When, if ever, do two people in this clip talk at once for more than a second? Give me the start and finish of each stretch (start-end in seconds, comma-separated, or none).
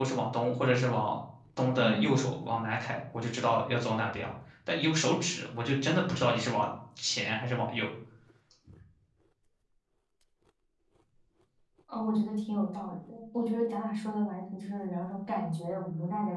none